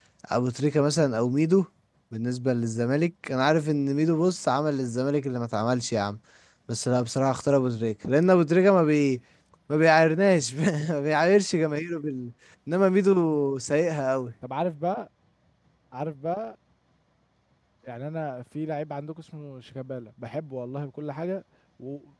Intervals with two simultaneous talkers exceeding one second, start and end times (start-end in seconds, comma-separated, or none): none